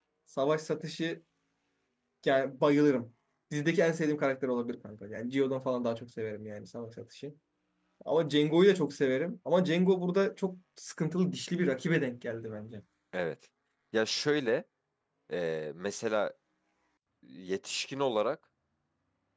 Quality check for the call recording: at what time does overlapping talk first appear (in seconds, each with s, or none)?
none